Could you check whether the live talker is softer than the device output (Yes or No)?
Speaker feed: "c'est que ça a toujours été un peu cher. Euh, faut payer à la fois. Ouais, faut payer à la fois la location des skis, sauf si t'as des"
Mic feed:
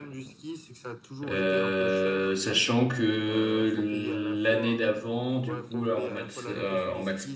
No